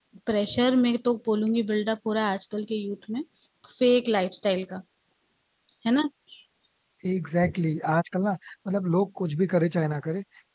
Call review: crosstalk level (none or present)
none